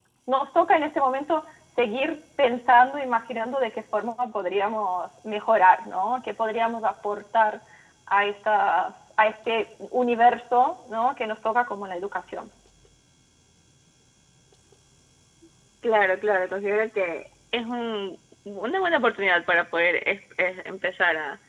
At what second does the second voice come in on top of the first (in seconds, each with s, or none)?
none